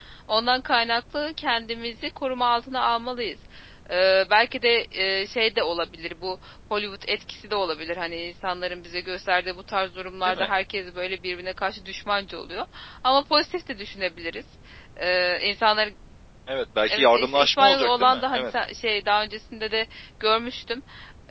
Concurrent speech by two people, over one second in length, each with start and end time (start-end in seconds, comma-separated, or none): 16.9-18.4